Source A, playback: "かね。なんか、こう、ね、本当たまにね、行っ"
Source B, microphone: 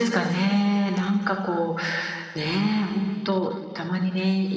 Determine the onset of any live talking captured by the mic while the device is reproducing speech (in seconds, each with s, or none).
none